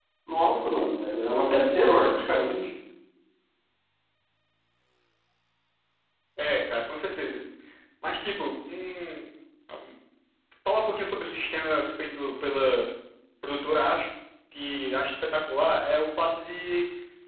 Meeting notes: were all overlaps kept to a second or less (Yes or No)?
Yes